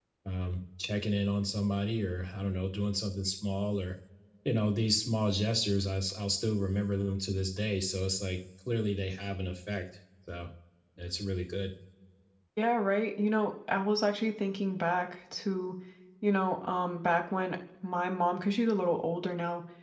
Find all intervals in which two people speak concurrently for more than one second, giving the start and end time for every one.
none

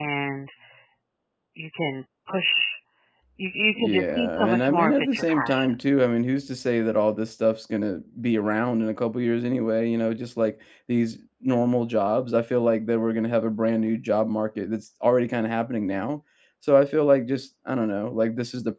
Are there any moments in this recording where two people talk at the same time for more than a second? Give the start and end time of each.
3.8-5.7

